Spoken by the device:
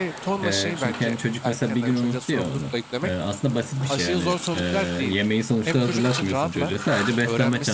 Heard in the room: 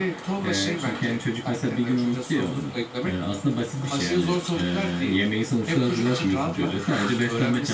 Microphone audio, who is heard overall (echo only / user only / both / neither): echo only